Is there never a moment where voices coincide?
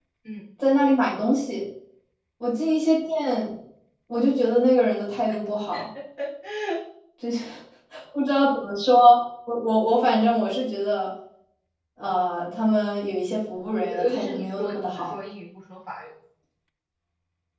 No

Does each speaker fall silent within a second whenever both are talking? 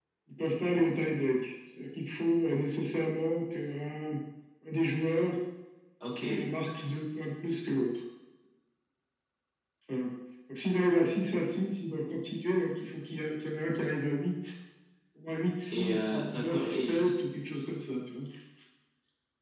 No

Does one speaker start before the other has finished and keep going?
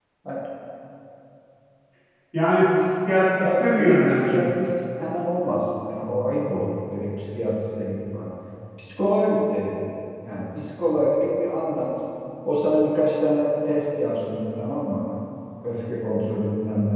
Yes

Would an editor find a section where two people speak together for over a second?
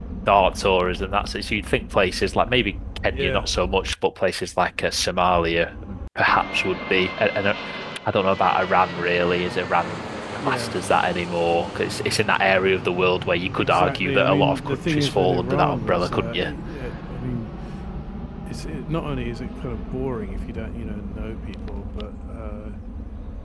Yes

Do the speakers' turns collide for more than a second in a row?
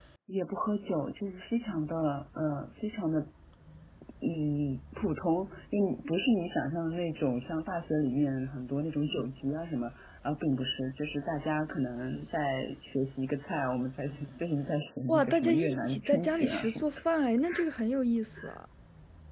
Yes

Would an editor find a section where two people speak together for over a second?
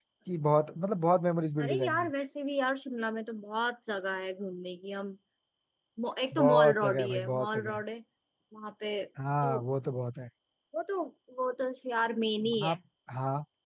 Yes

